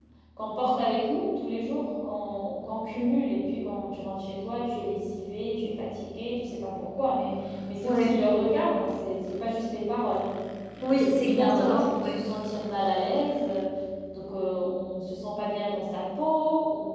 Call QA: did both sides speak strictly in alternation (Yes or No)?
No